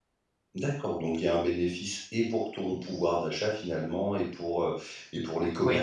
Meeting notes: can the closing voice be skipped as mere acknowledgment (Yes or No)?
Yes